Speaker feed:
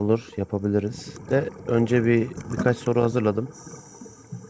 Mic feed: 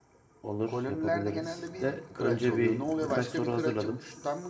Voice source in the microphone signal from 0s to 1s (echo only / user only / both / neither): both